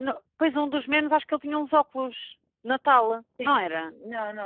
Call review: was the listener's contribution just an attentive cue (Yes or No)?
No